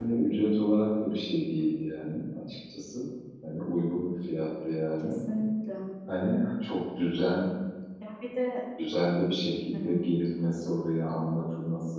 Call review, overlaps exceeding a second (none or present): none